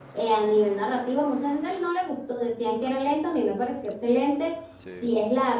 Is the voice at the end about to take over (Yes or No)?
No